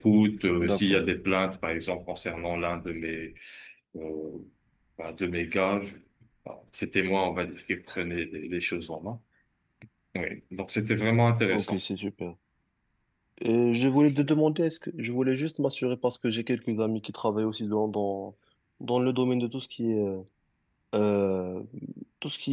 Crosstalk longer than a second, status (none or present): none